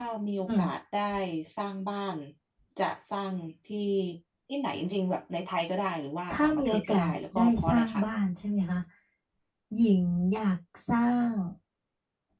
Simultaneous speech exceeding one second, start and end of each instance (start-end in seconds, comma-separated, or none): 6.3-8.0